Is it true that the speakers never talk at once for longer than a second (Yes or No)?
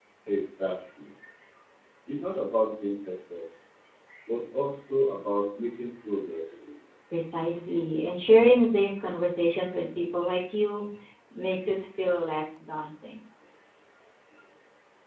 Yes